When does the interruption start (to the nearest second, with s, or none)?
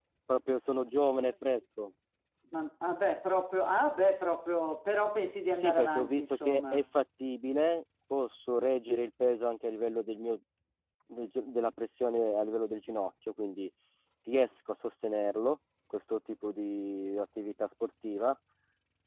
6 s